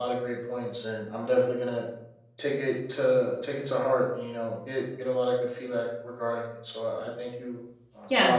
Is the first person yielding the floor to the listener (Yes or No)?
Yes